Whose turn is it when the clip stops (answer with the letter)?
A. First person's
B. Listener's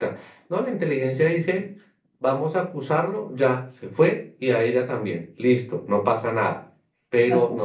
A